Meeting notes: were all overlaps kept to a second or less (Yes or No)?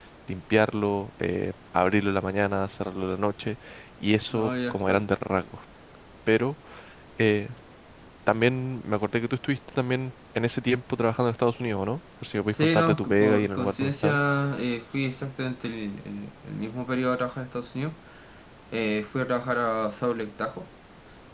No